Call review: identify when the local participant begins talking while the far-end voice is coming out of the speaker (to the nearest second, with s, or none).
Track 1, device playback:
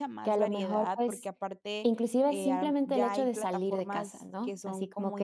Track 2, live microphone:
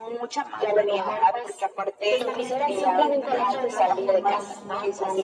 2 s